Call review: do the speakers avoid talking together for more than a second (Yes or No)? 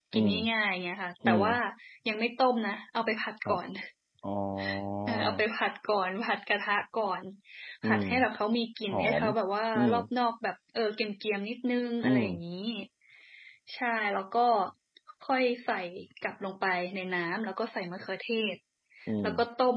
Yes